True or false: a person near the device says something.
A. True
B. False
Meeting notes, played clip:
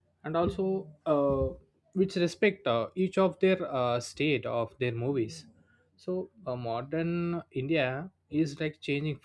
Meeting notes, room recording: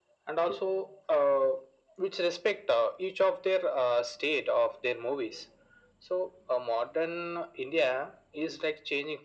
B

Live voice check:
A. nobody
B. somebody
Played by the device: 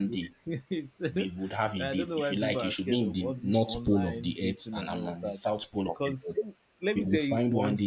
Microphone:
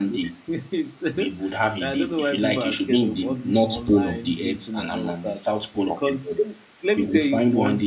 A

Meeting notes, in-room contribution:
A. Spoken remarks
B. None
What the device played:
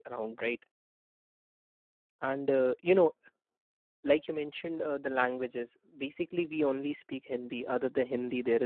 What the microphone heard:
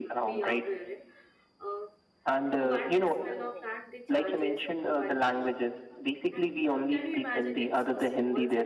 A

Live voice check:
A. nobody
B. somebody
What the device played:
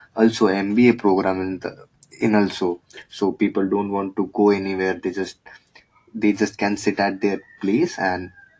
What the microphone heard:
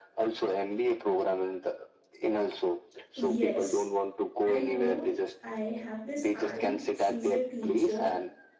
B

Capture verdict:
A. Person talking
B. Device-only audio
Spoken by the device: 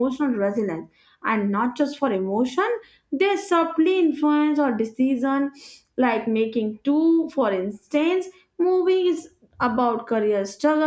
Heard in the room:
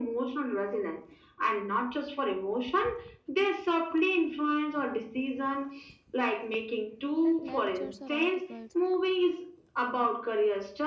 A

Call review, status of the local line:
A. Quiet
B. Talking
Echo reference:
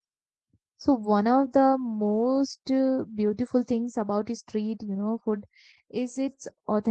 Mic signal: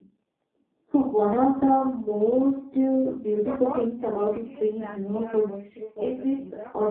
B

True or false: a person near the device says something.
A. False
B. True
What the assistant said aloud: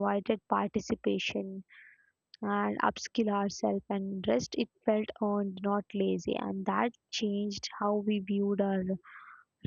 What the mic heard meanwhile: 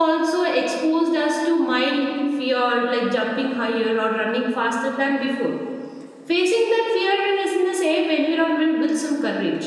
B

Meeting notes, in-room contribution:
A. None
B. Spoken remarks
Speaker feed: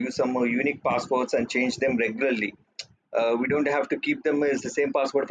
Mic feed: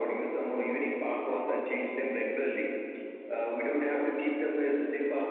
A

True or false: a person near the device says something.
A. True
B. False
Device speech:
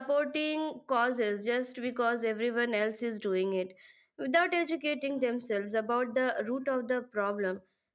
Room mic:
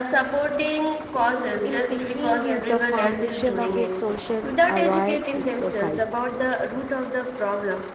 A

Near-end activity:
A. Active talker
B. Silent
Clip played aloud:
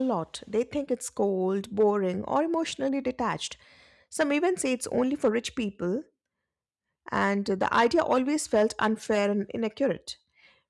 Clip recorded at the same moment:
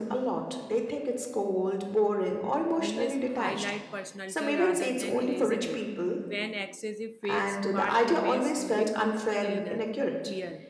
A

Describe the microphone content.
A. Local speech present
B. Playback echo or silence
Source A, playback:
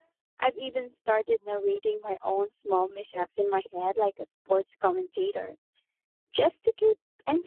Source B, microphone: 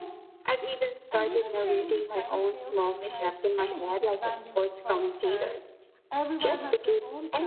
A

